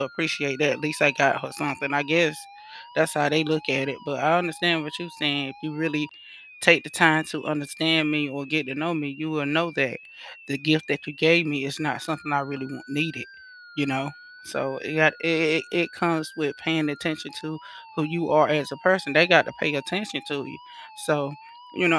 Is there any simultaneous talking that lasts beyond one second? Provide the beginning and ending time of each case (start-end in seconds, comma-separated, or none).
none